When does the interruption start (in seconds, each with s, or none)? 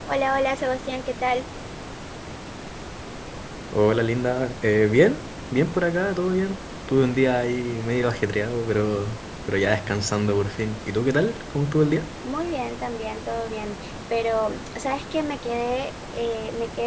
none